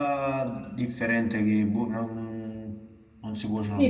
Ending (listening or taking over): taking over